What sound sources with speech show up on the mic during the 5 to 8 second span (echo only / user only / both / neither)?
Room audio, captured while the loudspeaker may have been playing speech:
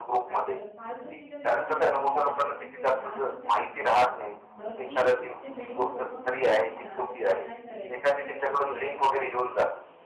both